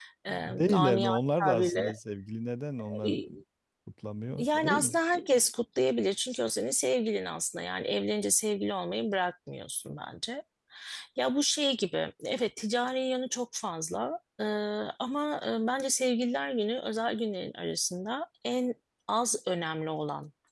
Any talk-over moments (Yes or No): Yes